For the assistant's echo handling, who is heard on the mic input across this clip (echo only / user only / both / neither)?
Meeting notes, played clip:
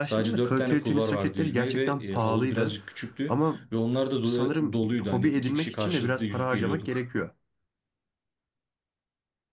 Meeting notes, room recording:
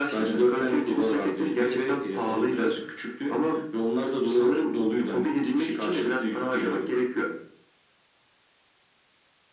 echo only